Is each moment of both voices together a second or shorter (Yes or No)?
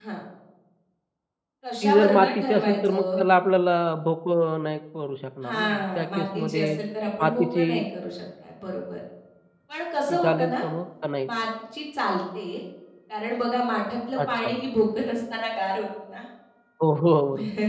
No